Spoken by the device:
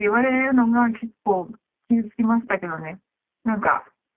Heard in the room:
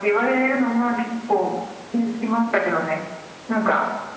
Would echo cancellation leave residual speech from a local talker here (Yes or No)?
No